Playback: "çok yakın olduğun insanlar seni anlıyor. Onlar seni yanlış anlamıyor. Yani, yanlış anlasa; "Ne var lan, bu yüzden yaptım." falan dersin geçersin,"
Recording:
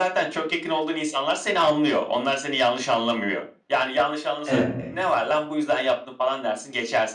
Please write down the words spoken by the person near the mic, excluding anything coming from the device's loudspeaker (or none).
Evet.